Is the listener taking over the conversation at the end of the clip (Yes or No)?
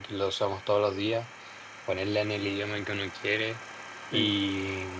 No